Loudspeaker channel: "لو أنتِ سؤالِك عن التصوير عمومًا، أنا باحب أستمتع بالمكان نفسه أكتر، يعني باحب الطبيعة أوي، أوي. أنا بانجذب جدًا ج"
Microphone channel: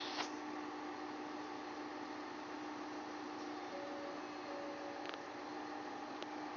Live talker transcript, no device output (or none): none